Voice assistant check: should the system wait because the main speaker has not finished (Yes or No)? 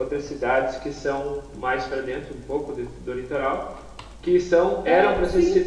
Yes